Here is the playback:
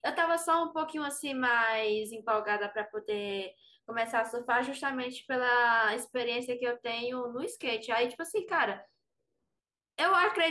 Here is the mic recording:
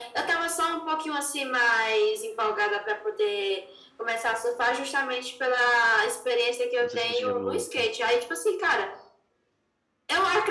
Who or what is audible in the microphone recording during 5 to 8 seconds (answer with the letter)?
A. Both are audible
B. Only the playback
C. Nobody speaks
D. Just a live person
A